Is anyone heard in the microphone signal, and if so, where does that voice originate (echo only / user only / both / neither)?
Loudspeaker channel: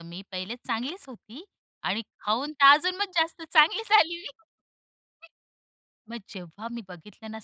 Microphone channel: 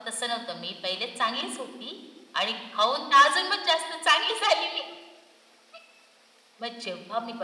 echo only